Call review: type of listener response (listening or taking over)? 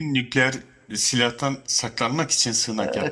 taking over